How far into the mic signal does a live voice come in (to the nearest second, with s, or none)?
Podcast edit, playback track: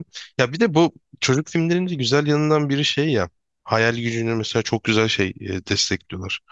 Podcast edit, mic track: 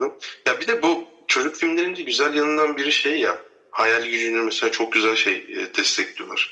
none